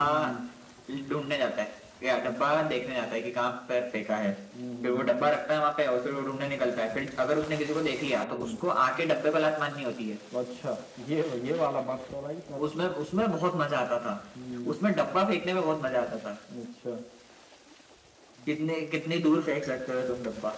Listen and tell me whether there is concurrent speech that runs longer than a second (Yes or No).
No